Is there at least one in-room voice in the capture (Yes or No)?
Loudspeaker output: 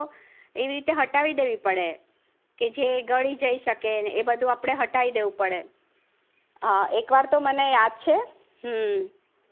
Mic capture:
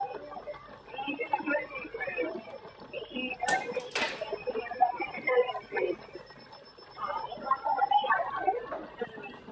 No